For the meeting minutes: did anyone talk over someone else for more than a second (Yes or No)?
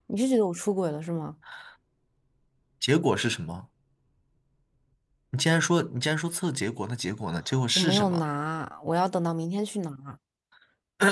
No